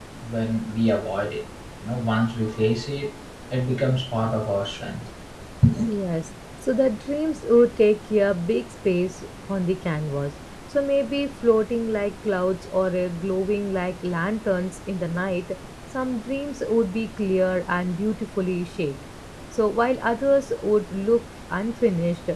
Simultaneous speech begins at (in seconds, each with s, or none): none